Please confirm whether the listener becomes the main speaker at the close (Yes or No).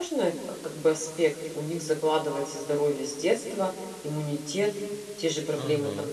No